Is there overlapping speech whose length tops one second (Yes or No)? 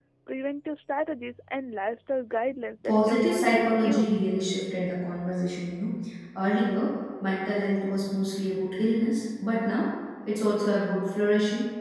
Yes